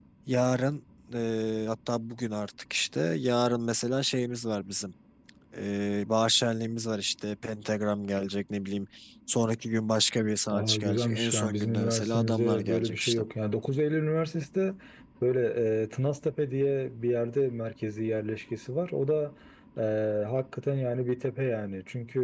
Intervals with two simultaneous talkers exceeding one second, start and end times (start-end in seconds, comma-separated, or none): 10.5-13.2